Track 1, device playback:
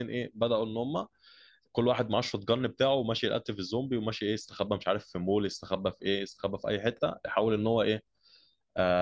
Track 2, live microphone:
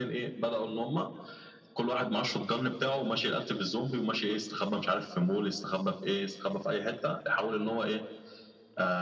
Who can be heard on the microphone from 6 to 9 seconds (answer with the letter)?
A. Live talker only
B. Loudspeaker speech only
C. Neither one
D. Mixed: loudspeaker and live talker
B